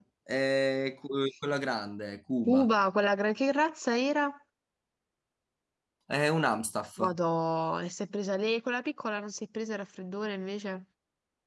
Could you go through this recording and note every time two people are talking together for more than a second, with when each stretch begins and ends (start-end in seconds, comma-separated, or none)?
none